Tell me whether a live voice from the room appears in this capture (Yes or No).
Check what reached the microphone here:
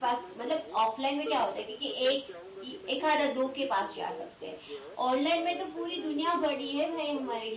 Yes